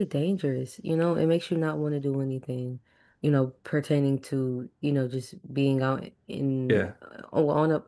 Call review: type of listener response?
listening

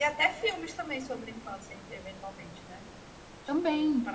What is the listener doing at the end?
listening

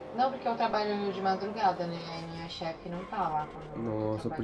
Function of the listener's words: taking over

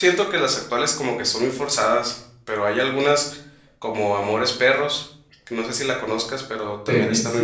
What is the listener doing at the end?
taking over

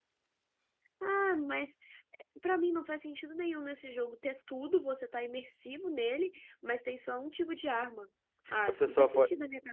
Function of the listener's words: taking over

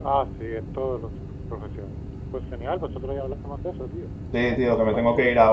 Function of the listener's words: taking over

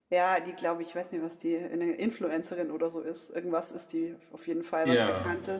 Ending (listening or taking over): listening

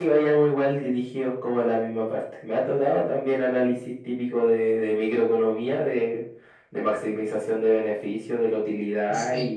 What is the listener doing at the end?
listening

